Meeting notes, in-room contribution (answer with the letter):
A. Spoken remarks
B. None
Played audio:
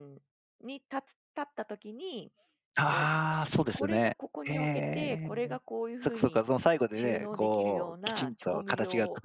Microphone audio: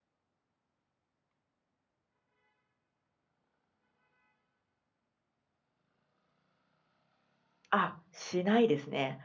A